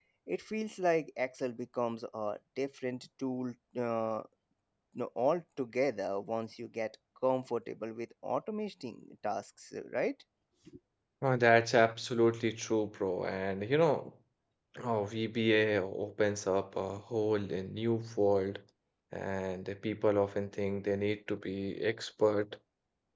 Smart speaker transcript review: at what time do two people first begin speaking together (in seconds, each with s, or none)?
none